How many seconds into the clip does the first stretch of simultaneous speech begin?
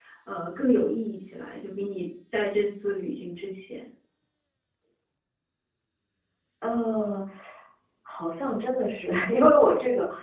none

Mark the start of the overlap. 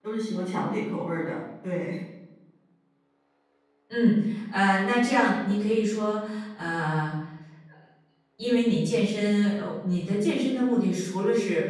none

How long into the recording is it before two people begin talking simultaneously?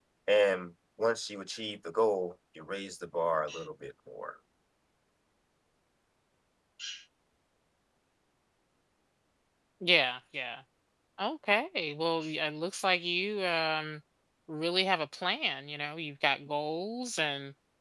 none

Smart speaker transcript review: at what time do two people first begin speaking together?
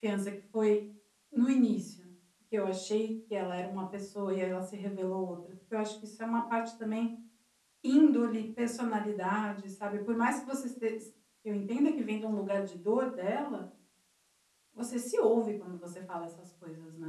none

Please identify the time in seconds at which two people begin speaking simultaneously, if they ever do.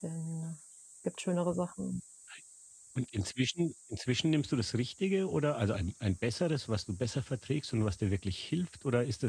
none

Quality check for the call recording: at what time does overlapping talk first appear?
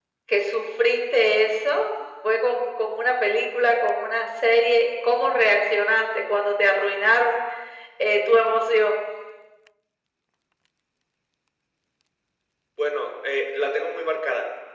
none

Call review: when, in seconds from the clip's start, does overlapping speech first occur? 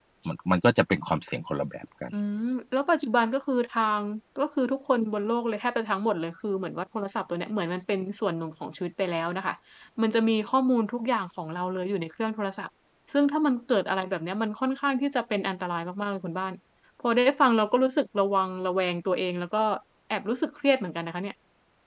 none

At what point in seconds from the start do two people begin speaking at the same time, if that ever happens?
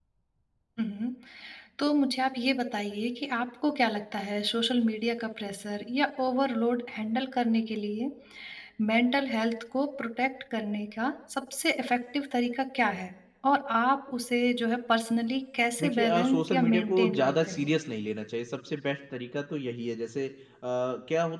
15.8 s

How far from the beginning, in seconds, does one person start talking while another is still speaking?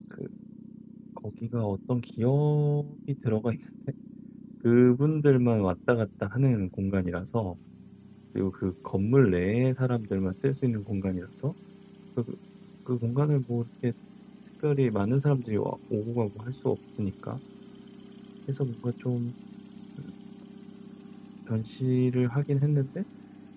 none

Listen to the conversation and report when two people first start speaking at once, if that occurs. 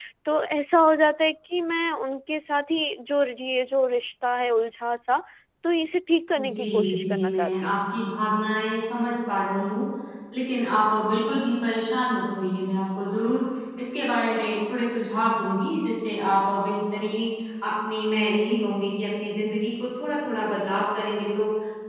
6.4 s

